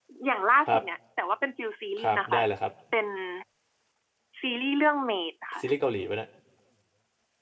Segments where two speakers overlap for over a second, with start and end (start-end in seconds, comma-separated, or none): none